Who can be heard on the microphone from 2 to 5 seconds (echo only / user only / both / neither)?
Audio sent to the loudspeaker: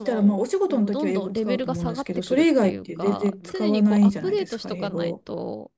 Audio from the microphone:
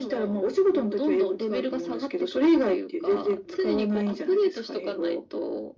echo only